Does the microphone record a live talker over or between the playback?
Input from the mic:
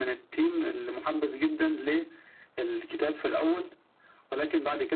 No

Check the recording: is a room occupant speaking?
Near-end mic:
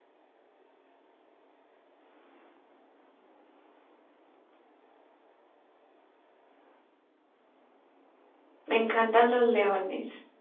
Yes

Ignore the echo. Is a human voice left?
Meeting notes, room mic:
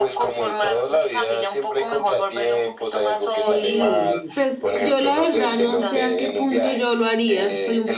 Yes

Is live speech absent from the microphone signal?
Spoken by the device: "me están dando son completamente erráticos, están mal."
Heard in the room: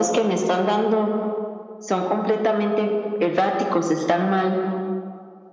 Yes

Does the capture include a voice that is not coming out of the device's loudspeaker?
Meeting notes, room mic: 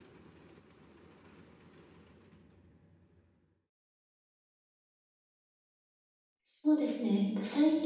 Yes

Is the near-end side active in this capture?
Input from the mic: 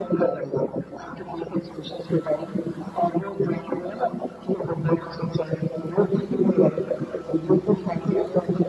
No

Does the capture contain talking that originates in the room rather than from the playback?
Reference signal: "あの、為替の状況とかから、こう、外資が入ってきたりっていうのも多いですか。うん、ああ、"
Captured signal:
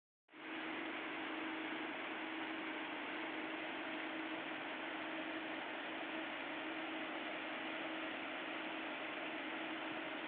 No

